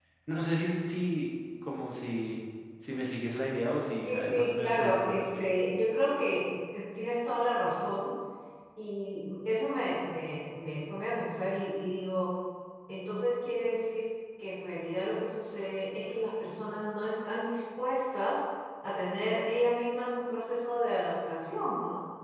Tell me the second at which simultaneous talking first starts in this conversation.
4.0 s

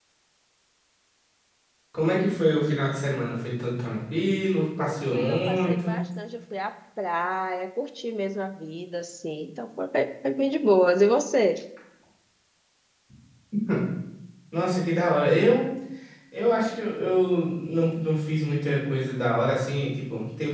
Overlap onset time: 4.6 s

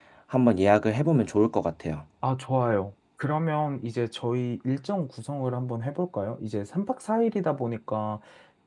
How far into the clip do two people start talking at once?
none

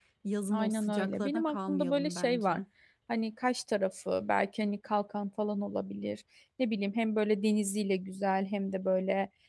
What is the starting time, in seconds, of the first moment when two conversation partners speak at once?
0.5 s

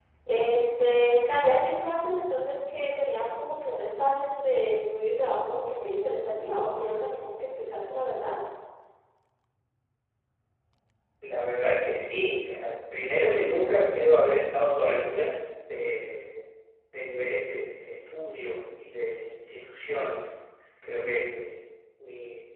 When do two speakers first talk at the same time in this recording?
none

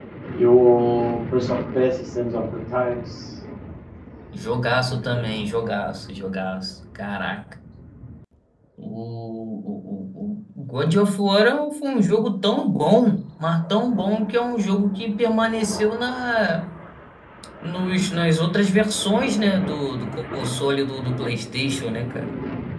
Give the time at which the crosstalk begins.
none

